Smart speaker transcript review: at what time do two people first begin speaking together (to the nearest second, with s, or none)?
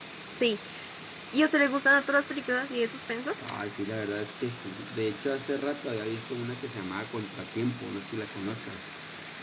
none